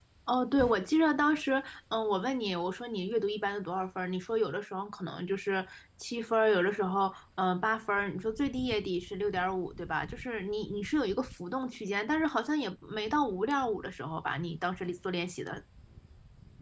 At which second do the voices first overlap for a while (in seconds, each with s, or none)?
none